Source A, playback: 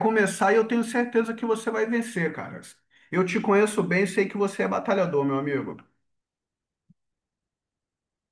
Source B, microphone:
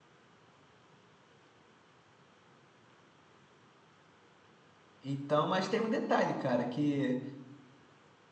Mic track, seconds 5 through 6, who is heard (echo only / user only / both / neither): user only